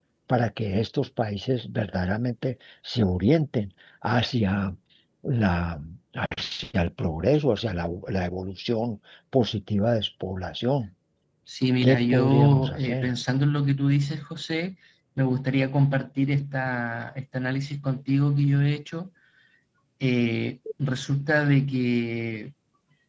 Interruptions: present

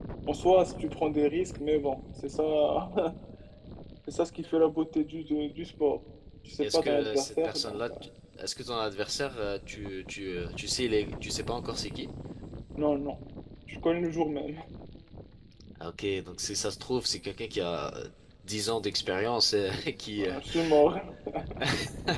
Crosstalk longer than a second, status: present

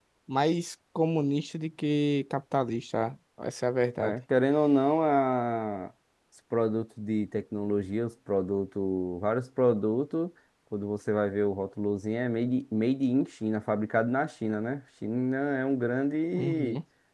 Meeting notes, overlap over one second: none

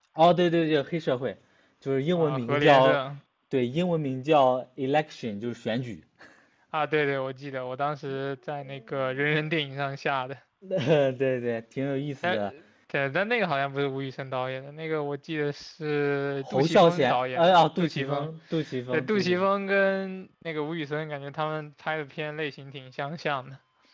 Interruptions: present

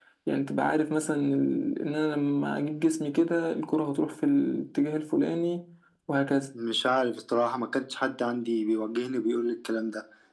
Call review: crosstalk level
none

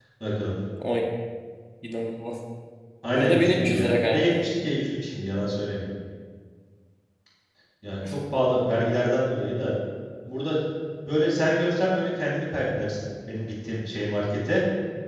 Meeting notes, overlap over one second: present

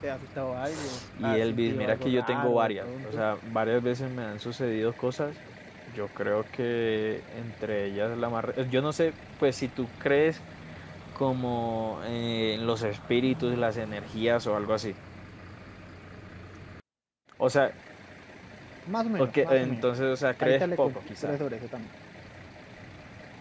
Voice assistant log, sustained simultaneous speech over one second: present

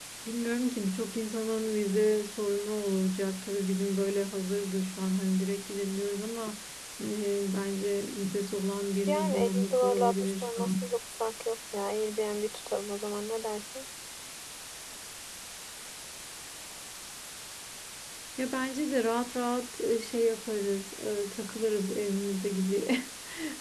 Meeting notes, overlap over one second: present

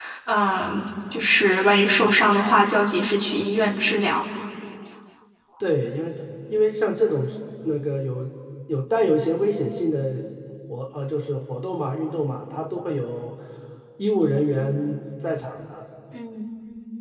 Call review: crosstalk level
none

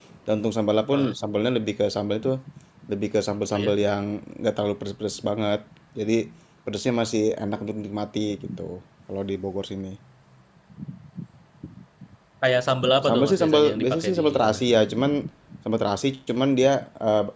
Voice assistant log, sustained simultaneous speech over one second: present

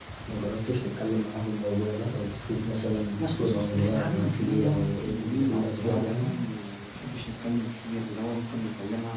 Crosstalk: present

